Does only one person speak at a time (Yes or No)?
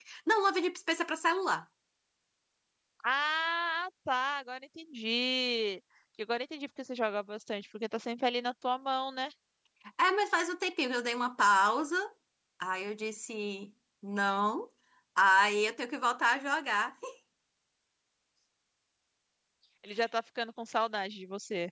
Yes